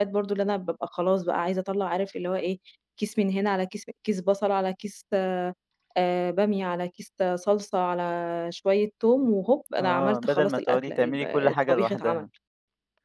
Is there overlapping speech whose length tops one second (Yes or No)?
Yes